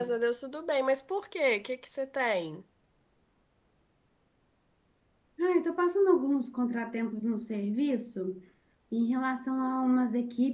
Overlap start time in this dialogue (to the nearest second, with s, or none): none